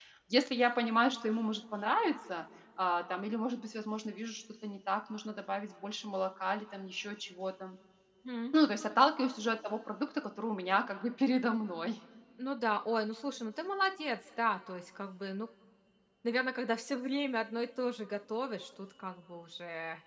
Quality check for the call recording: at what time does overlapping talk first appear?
none

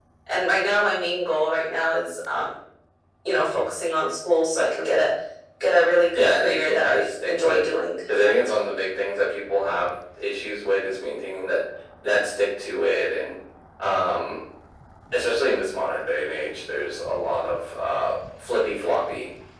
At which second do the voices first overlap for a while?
6 s

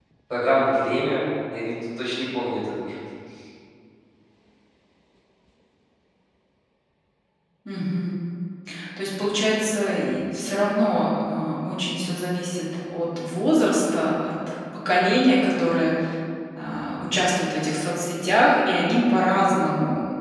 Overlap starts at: none

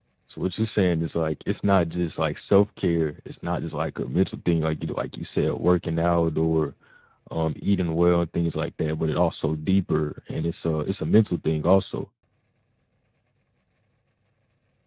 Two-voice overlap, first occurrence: none

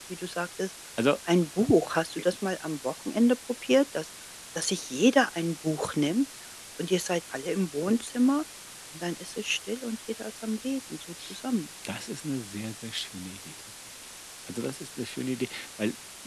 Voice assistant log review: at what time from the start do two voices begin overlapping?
none

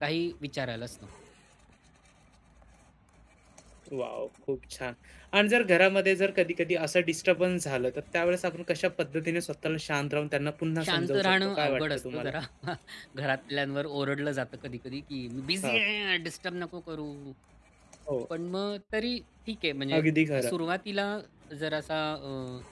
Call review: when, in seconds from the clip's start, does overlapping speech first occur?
11 s

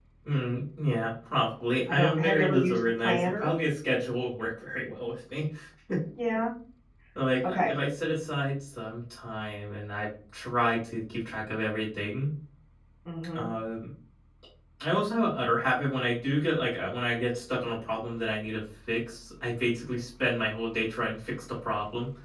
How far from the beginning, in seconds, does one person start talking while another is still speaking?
2 s

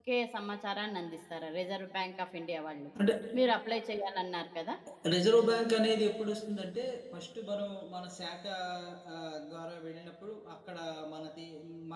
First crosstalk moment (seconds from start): none

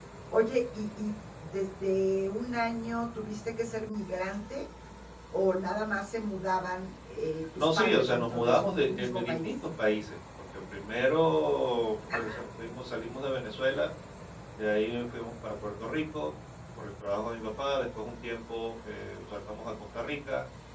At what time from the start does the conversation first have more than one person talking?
8 s

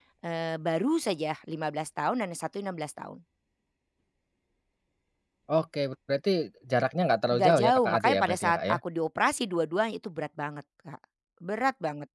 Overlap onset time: 7 s

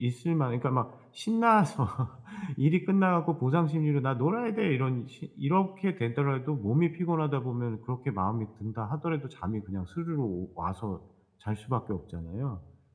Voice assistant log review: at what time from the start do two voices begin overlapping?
none

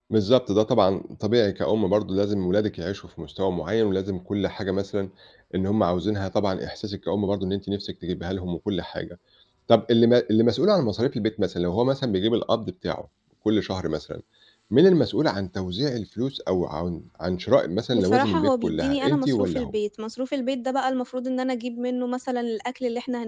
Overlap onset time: 18 s

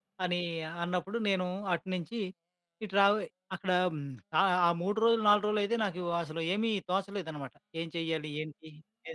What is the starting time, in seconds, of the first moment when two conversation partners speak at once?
none

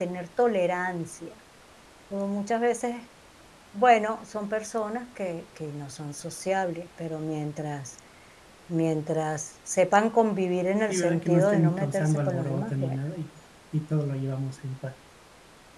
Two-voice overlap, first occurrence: 11 s

